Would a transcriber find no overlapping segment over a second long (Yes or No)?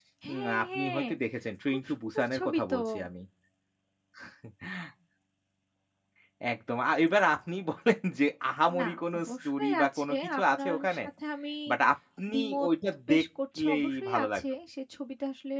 No